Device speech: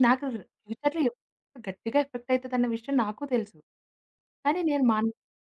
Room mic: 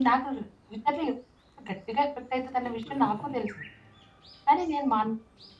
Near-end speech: present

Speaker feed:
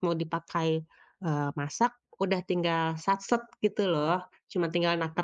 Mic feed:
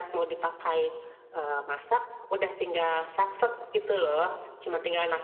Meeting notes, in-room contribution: none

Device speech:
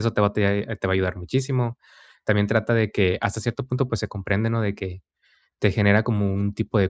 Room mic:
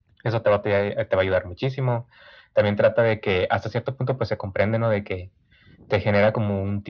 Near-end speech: none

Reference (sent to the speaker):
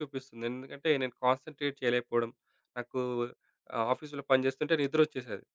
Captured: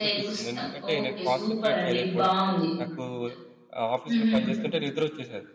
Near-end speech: present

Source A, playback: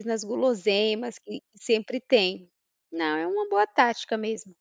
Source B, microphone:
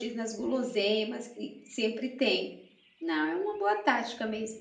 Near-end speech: none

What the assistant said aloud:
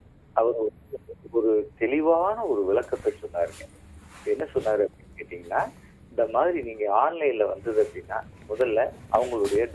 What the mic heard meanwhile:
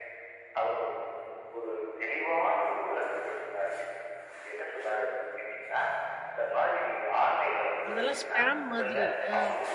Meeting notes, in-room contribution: present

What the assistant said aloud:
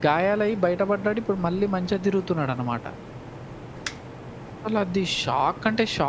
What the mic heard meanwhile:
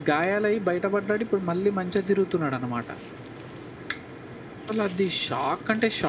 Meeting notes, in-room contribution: none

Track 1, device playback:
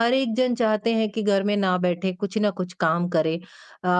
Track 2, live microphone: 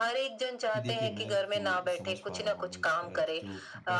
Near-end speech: present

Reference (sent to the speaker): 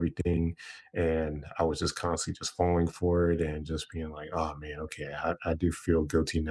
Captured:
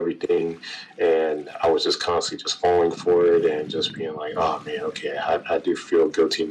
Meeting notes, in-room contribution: none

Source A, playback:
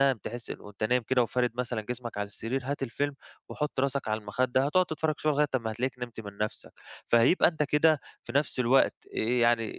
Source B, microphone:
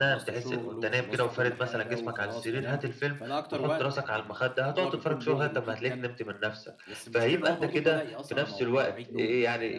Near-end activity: present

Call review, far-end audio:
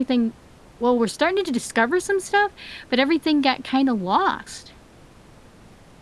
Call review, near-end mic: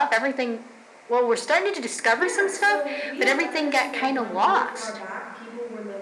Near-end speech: present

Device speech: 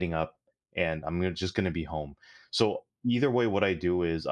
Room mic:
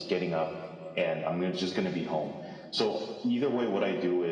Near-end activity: none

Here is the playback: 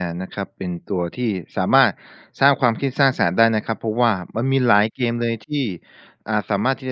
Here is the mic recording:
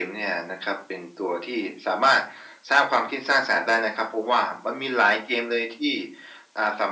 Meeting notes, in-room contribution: none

